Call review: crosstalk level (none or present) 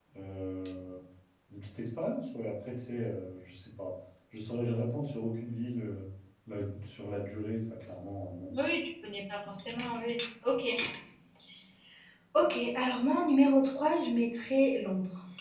none